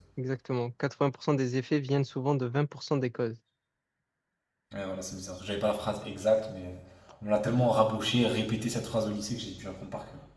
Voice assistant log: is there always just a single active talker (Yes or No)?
Yes